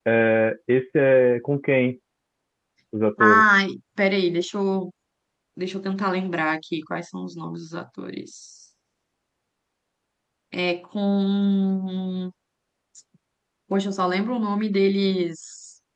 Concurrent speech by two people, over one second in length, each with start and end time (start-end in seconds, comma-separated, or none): none